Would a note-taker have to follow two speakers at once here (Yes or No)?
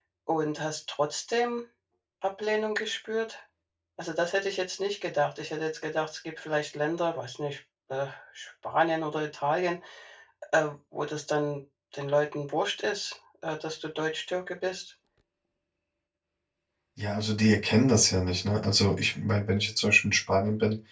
No